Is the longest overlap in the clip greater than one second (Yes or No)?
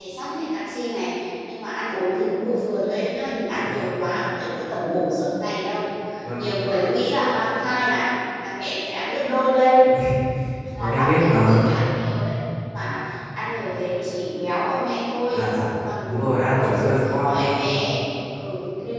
Yes